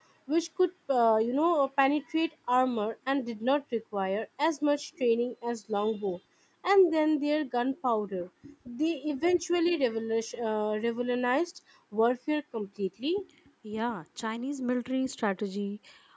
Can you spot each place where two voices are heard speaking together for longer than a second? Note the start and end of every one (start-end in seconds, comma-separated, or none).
none